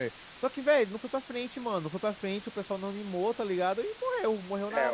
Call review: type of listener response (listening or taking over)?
taking over